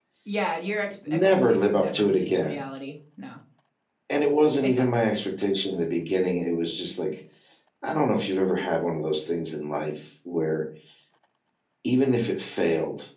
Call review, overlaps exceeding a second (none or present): present